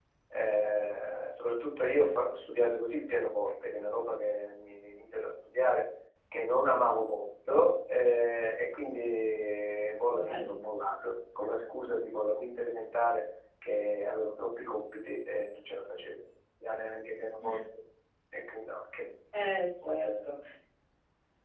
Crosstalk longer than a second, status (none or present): none